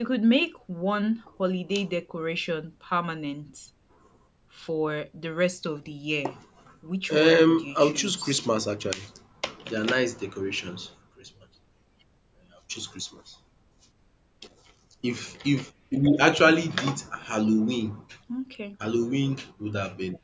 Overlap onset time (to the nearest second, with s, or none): 7 s